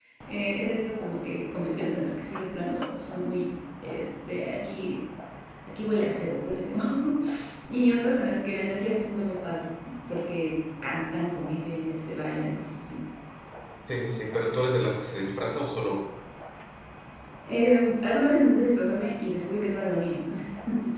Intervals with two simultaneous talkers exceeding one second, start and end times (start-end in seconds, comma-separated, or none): none